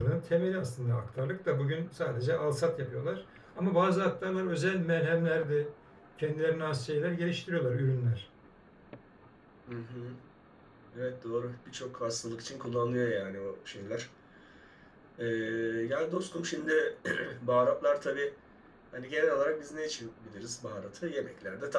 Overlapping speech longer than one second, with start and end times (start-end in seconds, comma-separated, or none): none